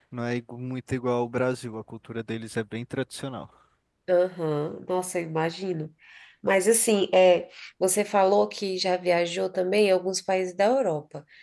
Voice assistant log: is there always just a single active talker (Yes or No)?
Yes